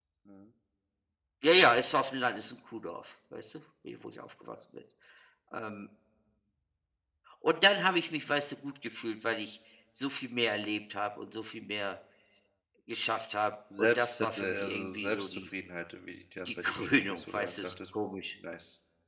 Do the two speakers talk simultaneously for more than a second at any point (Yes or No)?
Yes